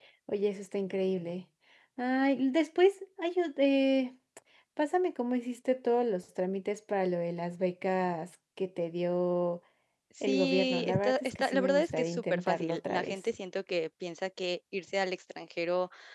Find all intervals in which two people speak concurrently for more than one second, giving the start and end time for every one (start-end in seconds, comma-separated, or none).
10.3-13.2